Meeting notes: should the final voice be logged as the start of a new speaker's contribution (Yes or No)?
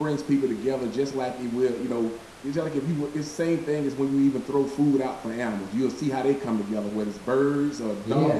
No